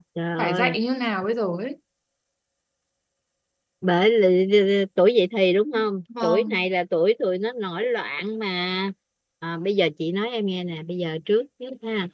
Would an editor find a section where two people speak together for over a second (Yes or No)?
No